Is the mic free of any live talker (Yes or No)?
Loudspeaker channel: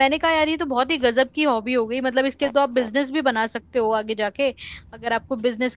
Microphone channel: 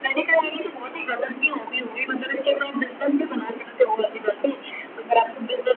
Yes